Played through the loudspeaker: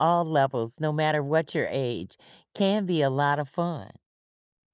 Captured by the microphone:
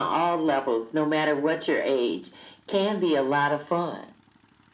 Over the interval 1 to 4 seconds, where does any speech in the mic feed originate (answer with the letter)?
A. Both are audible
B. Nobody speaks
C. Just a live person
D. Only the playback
D